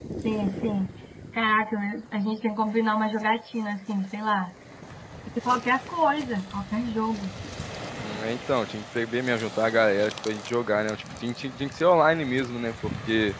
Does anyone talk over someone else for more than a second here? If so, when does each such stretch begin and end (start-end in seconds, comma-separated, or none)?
none